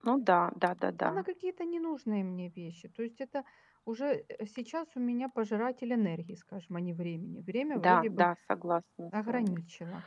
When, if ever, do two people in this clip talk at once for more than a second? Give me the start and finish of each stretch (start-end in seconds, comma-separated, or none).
none